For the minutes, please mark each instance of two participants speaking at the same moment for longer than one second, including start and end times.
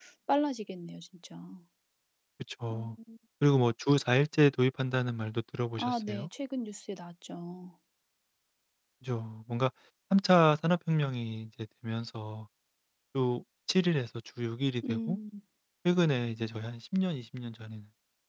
none

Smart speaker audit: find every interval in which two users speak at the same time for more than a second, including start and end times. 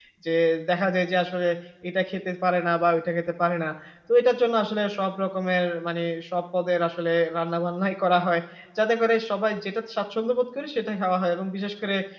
none

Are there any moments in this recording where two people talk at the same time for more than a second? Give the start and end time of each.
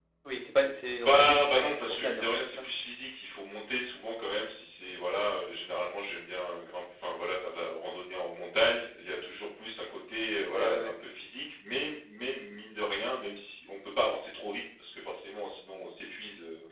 1.0-2.6

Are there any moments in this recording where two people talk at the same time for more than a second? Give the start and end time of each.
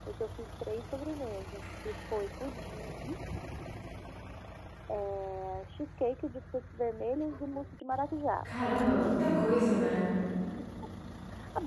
none

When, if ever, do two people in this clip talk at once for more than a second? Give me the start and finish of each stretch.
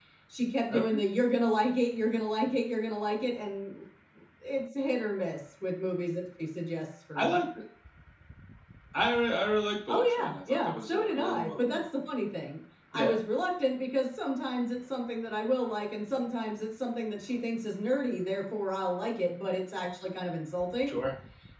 9.9-11.8

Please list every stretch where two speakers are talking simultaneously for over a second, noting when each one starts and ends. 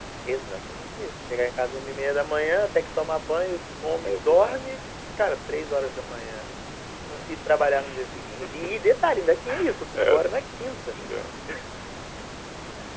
none

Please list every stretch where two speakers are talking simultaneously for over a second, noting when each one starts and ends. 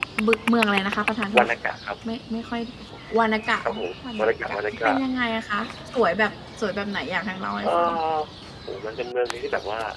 3.6-4.9

